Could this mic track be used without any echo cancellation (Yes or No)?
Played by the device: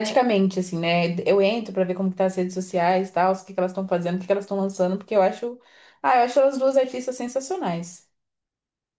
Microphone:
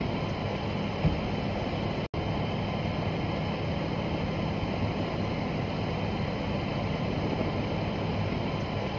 Yes